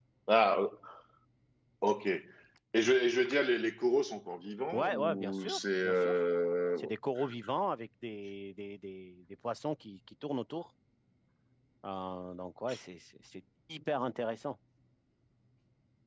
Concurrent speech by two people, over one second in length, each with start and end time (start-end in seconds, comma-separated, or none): 4.7-6.1